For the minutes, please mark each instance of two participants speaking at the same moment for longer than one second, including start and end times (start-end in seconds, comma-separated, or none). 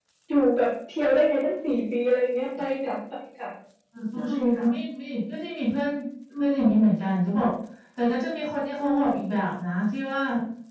none